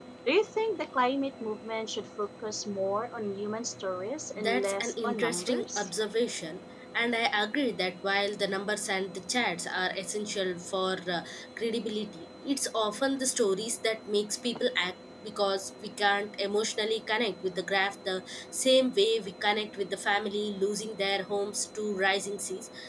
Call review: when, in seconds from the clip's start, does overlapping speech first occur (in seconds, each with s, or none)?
4.4 s